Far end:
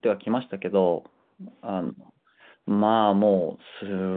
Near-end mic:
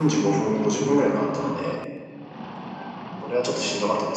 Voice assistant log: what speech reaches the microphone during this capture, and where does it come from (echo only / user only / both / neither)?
user only